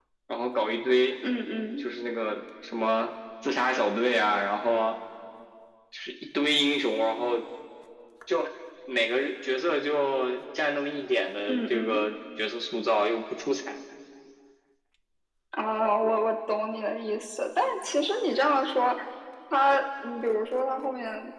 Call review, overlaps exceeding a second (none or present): none